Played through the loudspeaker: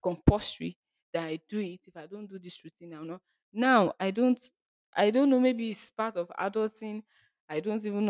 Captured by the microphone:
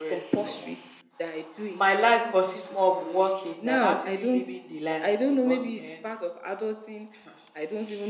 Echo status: present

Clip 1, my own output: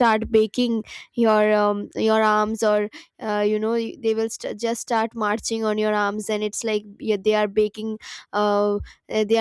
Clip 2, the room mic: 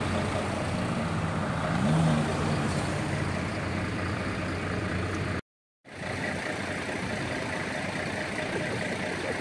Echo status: none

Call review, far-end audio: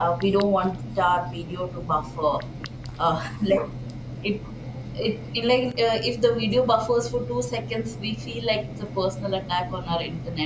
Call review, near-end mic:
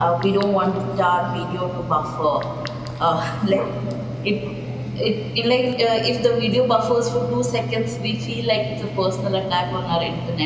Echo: present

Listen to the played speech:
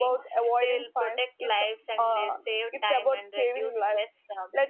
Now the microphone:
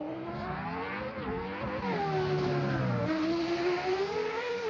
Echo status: none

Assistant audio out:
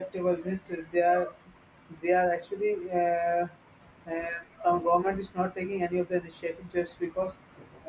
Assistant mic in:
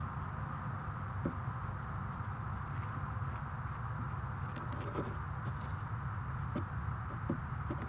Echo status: none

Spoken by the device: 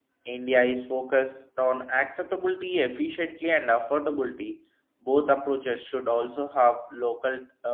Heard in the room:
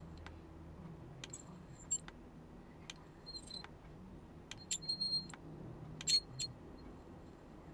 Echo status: none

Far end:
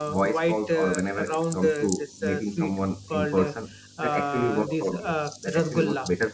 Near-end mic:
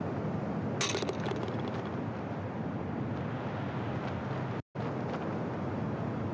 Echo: none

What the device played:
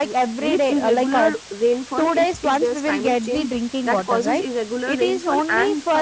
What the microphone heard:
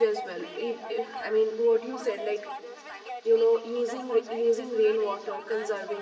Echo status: present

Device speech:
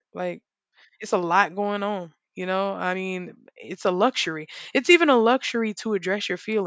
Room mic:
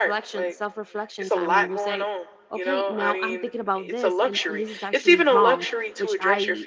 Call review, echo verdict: present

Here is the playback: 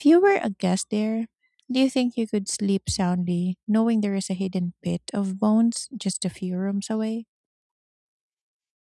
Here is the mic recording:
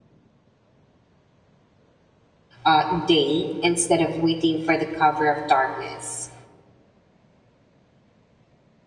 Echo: none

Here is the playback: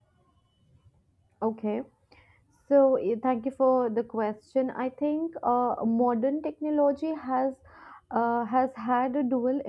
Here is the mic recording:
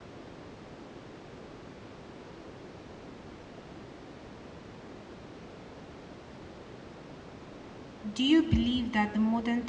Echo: none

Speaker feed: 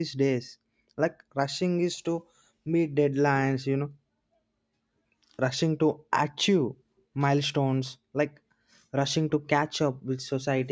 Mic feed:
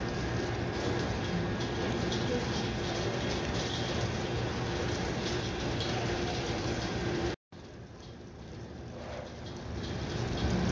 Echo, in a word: none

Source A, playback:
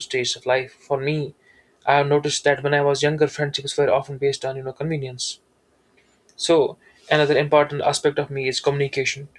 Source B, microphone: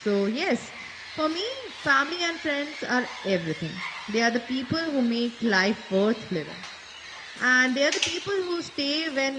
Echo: none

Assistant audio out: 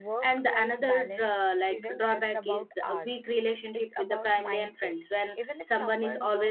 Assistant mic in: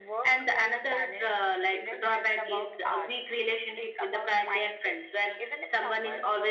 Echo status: present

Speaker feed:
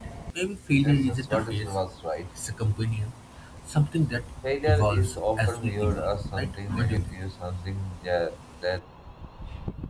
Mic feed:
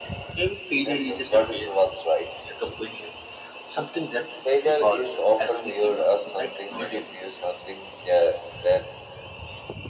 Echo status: present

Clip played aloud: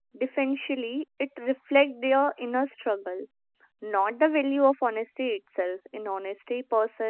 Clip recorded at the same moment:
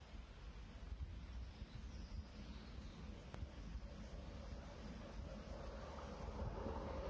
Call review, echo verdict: none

